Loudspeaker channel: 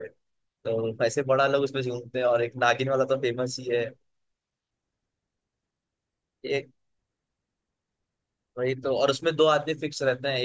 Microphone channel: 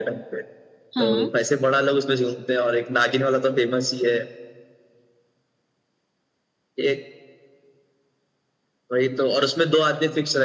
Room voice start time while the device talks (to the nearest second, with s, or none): 1 s